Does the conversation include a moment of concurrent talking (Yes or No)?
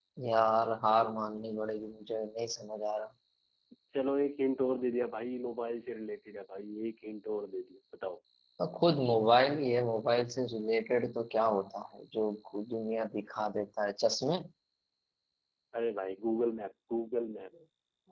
No